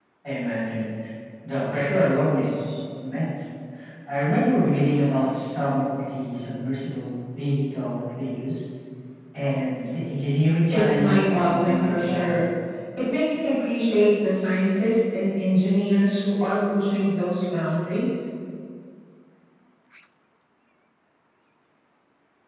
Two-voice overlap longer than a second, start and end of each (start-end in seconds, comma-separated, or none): 10.7-12.5